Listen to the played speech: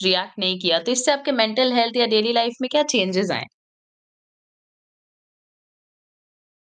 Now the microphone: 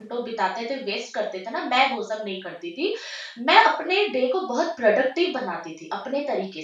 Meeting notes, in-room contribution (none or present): present